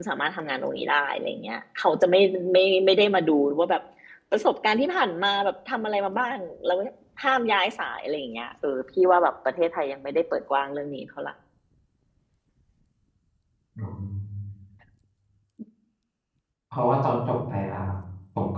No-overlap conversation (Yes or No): Yes